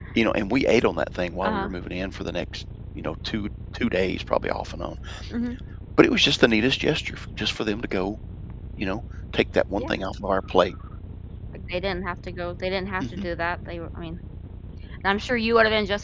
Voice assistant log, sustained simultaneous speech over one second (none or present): none